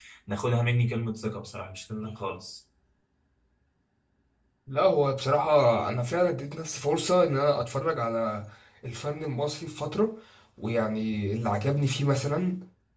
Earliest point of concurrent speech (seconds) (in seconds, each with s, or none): none